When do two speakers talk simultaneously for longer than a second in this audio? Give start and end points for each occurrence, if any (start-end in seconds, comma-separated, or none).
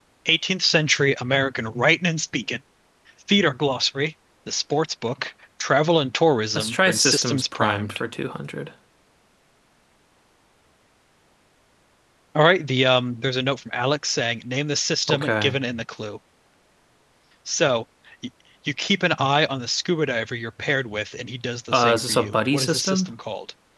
6.5-8.0, 21.7-23.1